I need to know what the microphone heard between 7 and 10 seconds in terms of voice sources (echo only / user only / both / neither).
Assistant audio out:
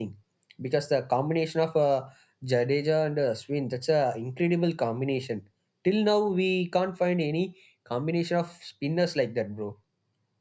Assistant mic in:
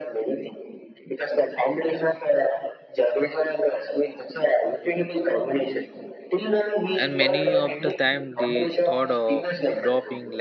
both